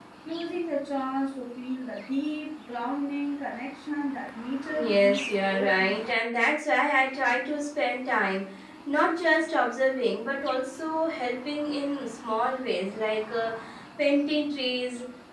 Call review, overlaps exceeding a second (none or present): present